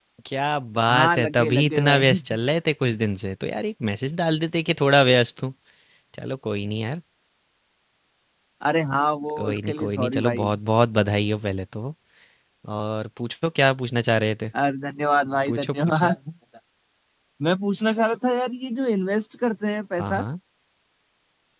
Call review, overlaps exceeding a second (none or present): present